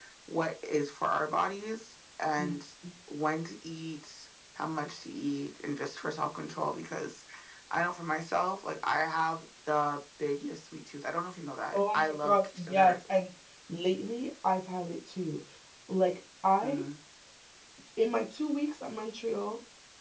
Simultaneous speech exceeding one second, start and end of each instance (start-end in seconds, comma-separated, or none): 11.7-13.0